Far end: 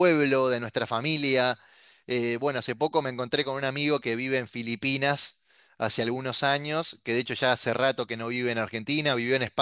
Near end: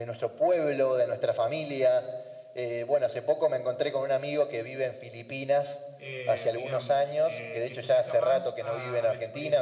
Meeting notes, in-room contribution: present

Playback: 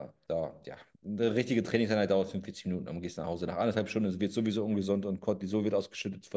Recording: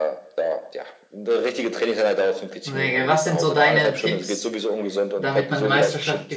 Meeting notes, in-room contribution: present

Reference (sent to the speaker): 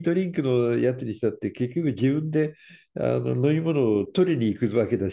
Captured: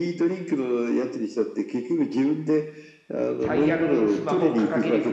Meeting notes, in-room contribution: present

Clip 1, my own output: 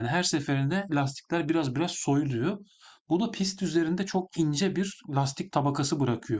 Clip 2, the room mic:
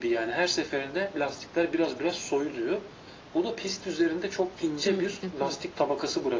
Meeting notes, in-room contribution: present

